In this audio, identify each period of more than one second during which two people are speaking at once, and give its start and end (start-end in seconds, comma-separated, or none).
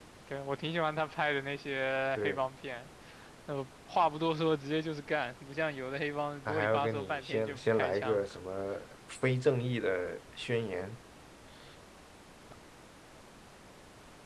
6.5-8.3